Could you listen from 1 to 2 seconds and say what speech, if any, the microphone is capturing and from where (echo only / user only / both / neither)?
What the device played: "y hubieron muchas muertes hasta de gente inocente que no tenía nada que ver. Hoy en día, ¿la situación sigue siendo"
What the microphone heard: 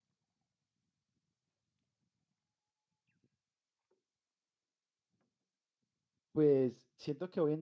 neither